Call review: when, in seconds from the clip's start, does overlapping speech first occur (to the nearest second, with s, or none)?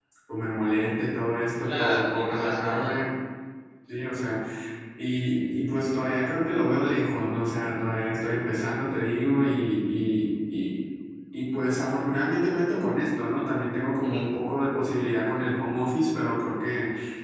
2 s